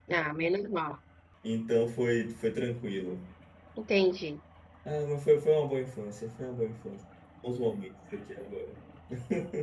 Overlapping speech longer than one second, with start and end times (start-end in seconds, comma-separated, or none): none